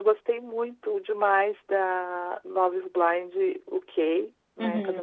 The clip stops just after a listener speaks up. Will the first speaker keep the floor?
Yes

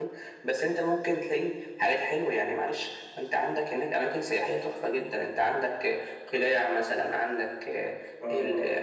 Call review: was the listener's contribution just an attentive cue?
Yes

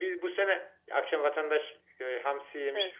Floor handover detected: No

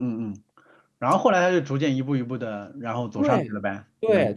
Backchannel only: No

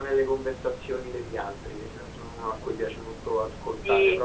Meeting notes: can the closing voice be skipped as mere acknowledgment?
No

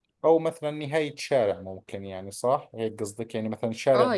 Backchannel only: No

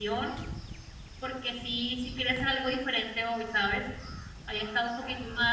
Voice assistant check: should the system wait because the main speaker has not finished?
Yes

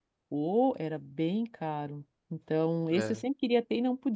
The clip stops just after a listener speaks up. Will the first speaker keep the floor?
Yes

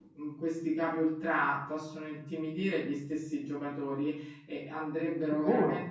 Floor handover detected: No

